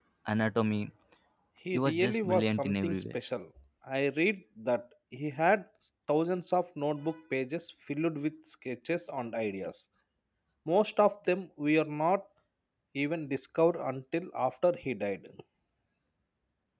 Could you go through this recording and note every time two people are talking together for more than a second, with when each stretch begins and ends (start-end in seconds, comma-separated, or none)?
1.7-3.2